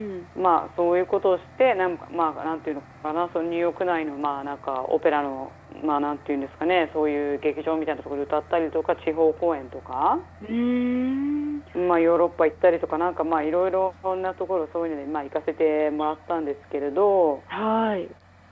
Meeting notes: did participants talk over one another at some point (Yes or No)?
No